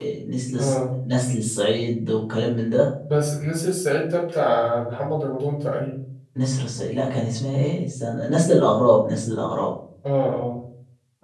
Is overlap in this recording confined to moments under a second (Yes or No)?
Yes